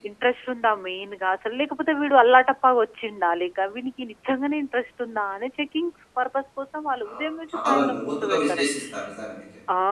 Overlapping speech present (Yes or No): Yes